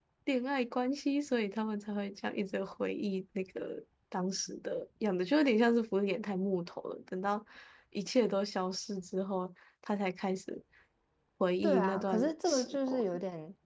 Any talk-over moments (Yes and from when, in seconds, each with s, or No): Yes, from 11.6 s